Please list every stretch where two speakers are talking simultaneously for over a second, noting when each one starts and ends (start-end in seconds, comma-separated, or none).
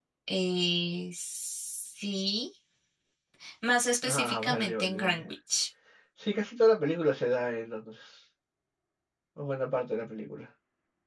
4.0-5.2